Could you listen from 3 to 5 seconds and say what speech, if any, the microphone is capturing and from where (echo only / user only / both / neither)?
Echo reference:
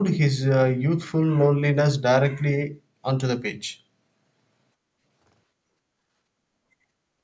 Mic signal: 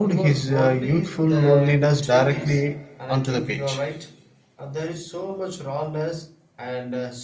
both